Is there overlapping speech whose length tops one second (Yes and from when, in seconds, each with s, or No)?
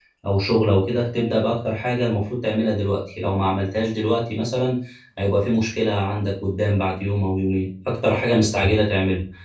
No